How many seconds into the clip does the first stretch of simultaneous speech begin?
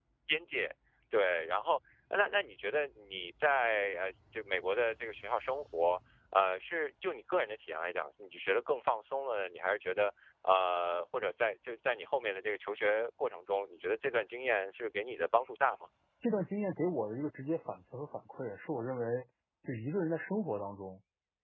none

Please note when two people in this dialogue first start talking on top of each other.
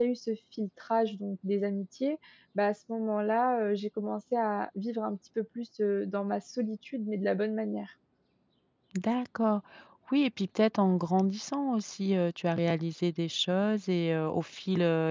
none

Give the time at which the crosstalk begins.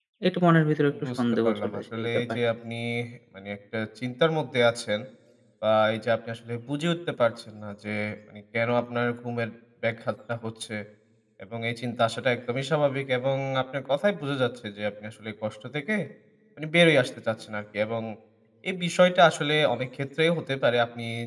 1.2 s

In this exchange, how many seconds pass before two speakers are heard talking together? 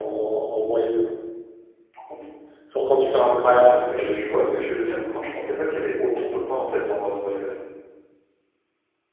3.4 s

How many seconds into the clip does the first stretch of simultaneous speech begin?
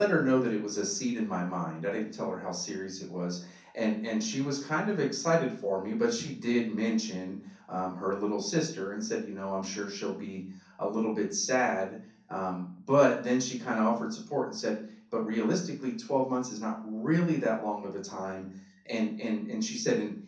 none

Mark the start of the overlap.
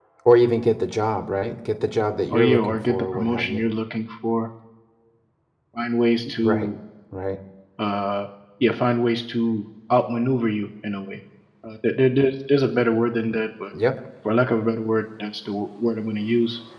2.3 s

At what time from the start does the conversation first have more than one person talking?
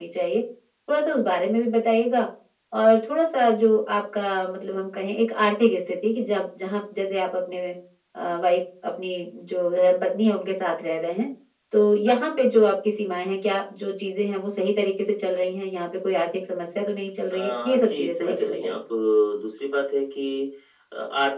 17.3 s

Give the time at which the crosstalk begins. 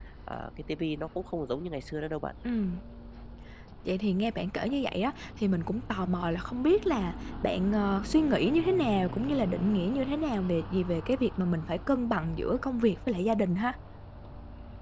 none

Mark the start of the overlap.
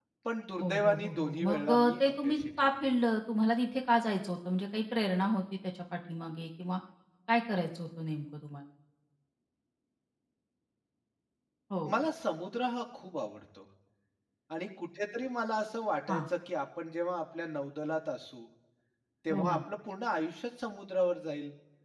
0.6 s

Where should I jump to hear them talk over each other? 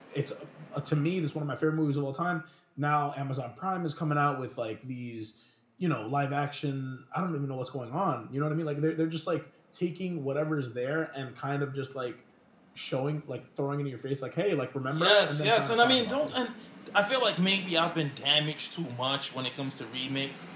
15.0 s

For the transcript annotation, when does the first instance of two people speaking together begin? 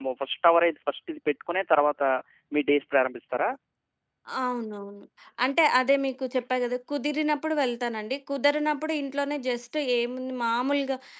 none

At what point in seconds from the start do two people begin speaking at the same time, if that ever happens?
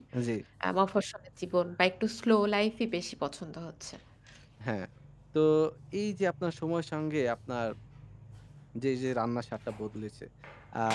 none

